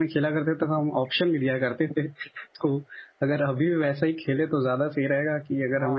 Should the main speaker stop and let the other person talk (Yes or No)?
Yes